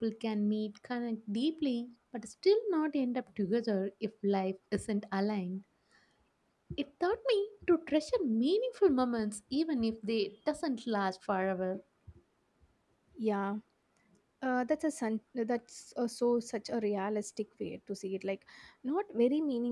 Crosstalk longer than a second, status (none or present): none